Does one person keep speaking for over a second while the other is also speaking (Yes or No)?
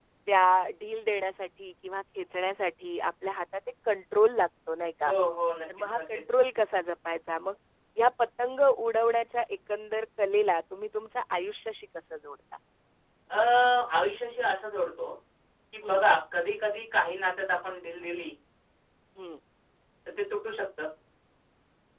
No